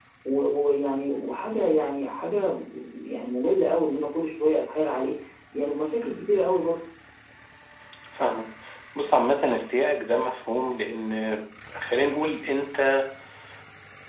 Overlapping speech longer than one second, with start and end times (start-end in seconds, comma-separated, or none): none